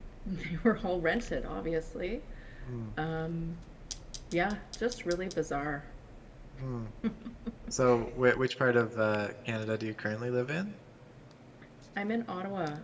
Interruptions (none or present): none